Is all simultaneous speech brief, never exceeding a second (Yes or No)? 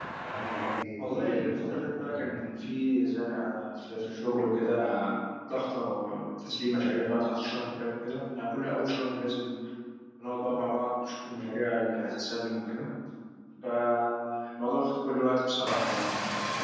No